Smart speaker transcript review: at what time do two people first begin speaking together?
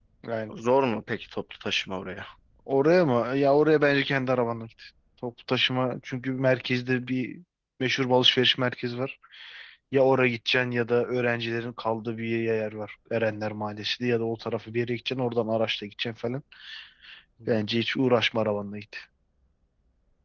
none

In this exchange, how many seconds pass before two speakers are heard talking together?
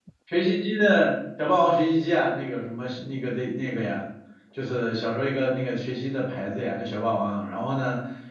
none

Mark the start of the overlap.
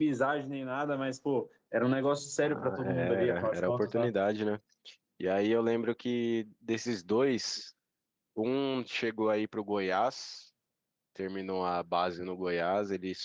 2.4 s

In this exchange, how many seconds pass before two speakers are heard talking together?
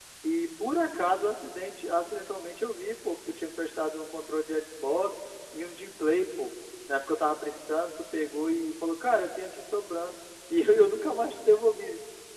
none

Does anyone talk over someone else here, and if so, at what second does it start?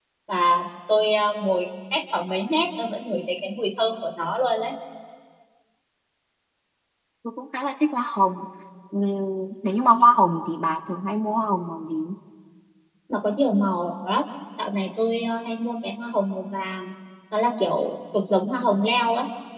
none

